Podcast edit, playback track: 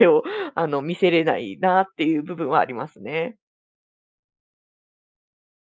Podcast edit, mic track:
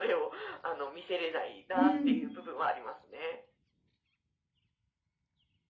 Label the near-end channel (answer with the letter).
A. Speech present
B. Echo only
A